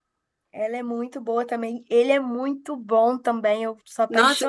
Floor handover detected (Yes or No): Yes